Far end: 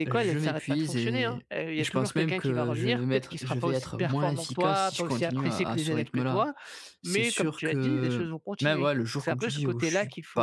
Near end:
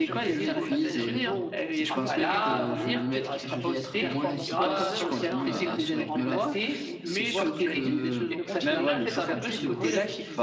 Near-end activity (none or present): present